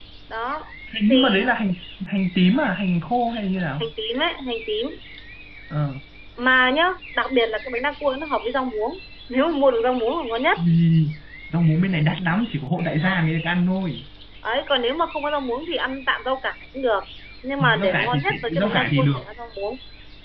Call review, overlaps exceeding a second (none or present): present